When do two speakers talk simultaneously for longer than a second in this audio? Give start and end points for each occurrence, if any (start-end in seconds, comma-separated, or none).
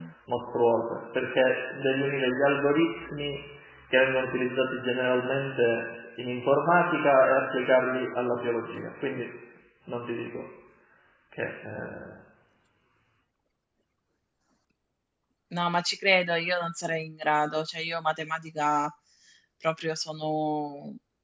none